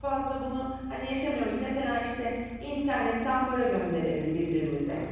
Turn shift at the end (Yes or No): No